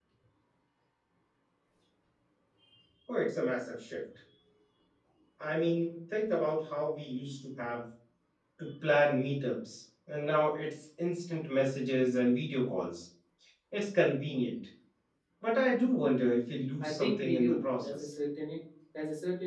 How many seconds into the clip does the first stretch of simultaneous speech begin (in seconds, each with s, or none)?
16.8 s